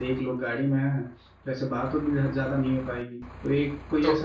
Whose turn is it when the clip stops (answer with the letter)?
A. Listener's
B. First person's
A